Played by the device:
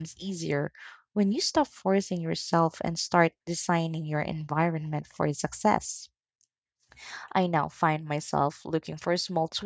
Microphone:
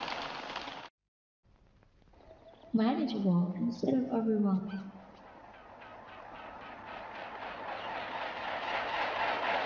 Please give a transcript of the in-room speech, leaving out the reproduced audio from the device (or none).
manageable instead of overwhelming.